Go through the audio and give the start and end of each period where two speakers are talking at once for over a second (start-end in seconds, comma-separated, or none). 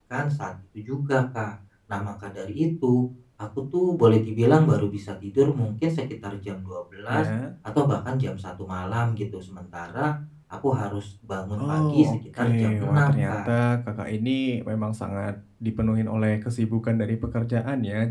11.6-13.5